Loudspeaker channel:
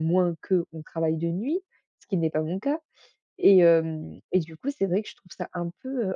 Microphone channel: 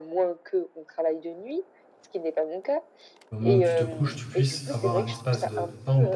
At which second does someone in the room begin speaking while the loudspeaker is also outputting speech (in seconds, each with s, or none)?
3.3 s